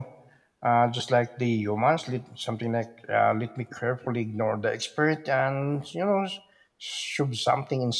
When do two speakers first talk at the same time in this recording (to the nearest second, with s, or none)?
none